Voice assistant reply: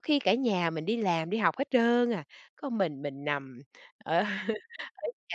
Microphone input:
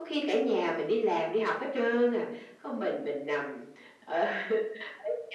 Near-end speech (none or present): none